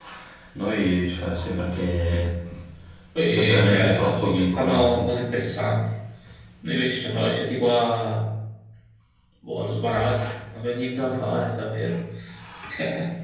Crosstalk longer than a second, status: present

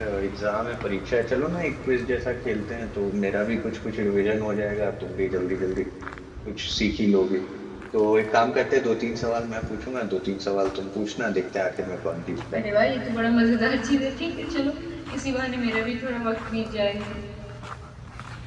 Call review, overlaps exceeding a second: none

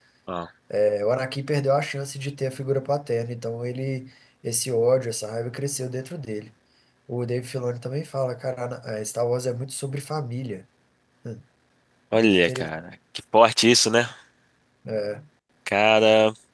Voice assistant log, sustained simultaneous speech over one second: none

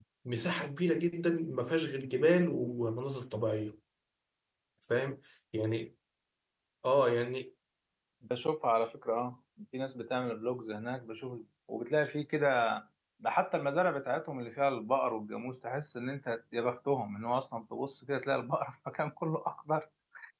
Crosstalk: none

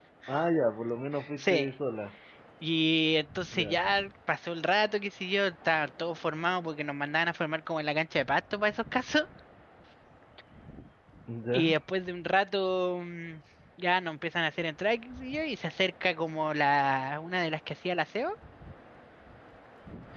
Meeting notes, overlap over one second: none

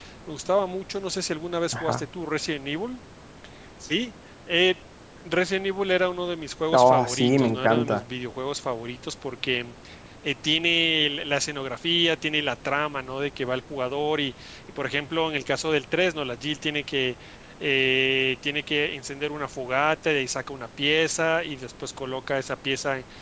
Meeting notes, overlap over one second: present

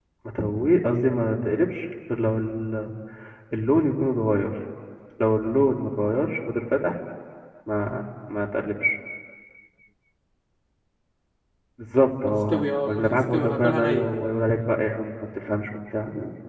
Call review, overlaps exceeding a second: present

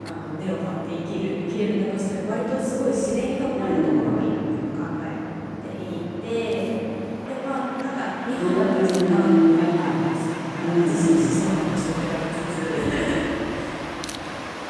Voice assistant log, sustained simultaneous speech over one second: present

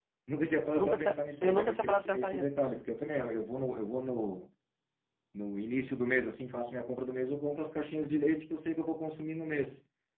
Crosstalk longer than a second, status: present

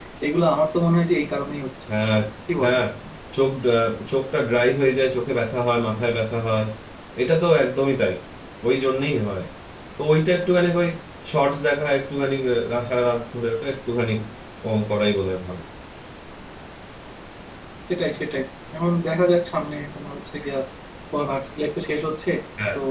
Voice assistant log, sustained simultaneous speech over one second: none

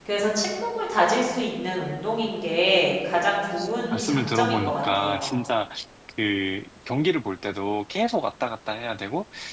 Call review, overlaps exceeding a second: present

